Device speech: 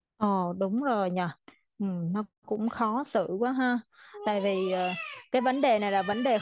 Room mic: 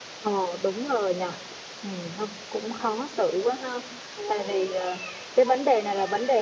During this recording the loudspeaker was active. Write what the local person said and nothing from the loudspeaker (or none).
none